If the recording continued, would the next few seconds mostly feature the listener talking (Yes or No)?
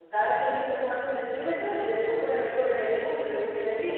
Yes